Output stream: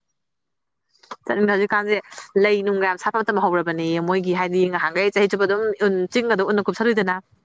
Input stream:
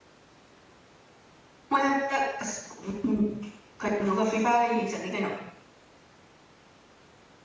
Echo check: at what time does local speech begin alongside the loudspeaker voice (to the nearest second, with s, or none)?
2 s